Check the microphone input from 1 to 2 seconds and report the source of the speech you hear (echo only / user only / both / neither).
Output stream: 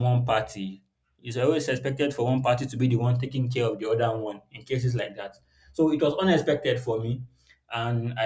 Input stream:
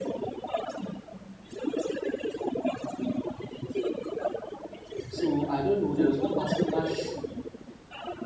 echo only